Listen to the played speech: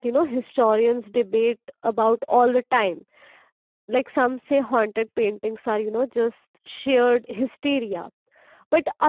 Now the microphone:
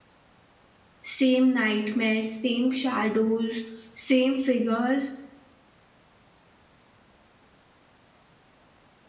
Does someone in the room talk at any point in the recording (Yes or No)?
Yes